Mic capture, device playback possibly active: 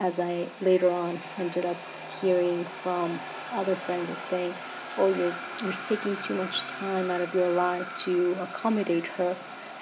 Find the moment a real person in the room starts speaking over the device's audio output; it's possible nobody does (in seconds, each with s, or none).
none